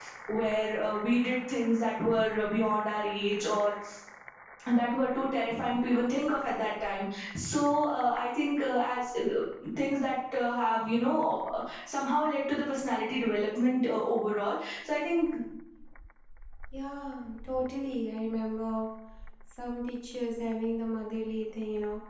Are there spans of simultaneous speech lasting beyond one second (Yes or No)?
No